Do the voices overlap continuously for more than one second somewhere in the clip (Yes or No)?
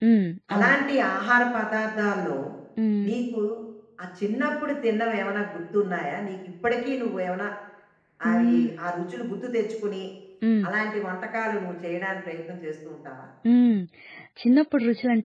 No